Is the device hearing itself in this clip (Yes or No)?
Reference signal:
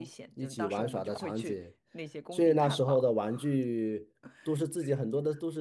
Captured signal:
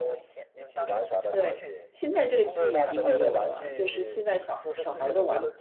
Yes